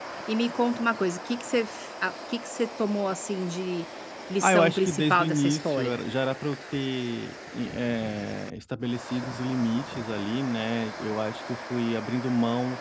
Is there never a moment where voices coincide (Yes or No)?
No